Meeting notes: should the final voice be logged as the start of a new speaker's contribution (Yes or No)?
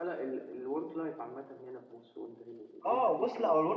Yes